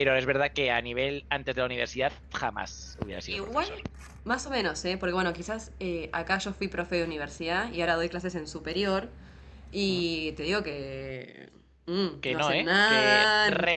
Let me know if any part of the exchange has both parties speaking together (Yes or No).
Yes